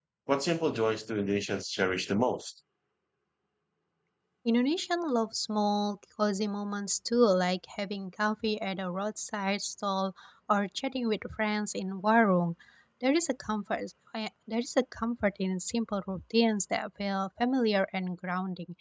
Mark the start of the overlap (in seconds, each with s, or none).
none